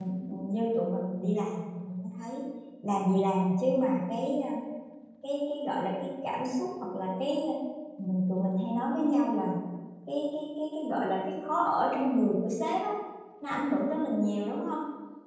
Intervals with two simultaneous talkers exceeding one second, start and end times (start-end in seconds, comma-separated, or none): none